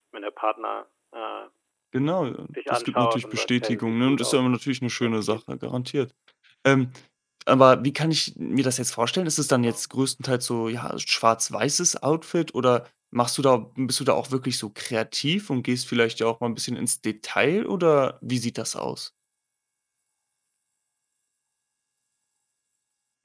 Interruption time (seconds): 3 s

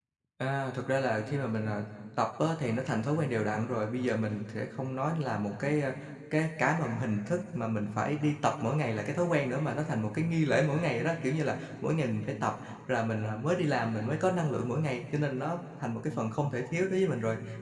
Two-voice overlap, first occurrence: none

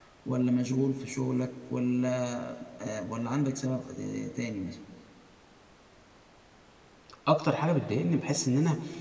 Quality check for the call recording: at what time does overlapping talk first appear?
none

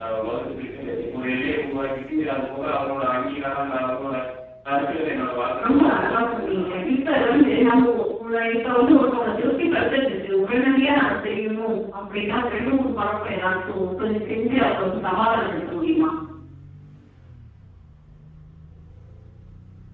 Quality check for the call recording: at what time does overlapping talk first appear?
6 s

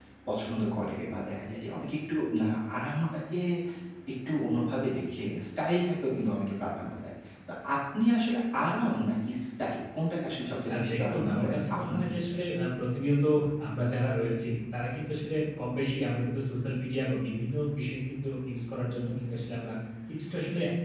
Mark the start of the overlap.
11 s

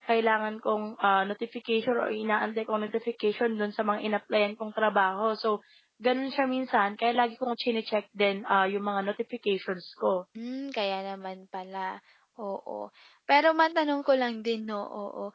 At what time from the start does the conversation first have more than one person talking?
none

